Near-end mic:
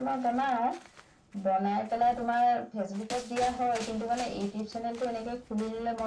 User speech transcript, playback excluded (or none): none